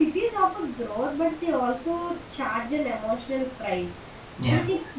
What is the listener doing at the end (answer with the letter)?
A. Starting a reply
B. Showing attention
B